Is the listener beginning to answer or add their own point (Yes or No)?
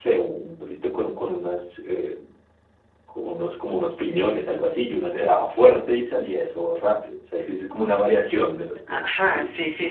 Yes